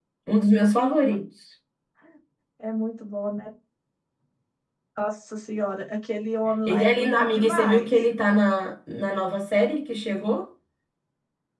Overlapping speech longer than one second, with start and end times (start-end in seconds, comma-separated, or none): 6.7-7.9